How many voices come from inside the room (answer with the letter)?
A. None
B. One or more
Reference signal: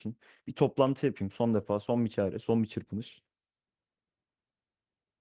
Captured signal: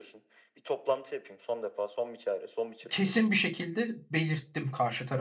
B